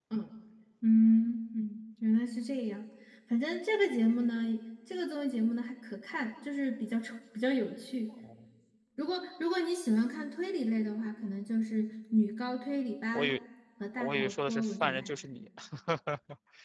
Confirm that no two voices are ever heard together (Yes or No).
No